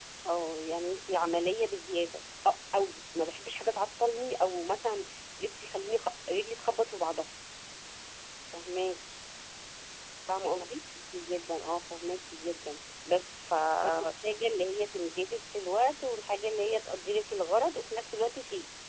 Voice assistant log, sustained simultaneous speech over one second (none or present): none